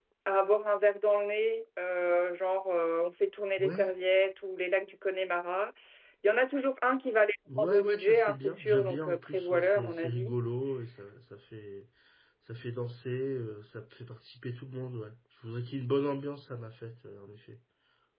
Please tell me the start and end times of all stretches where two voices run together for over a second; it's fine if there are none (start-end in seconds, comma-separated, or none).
7.6-10.3